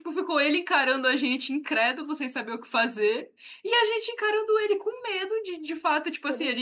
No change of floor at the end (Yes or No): Yes